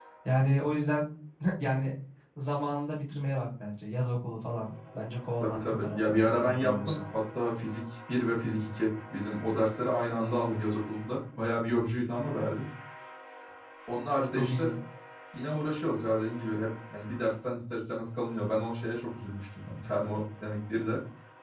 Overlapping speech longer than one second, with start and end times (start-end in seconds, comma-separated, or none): 5.4-7.0